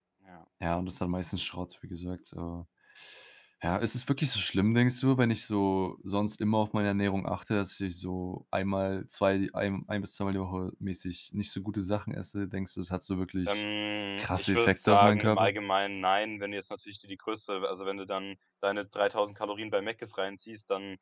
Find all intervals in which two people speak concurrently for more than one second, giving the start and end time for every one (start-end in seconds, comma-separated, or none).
14.2-15.5